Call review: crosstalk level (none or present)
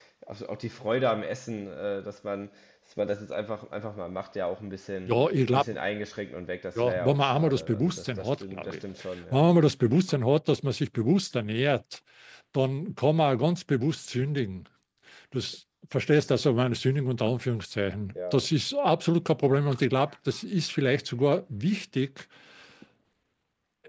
present